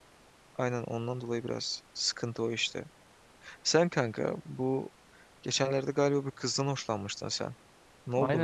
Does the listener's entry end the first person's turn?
Yes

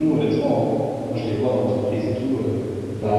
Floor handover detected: Yes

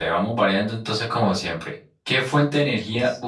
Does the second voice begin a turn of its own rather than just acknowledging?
No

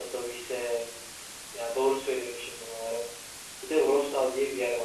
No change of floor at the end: Yes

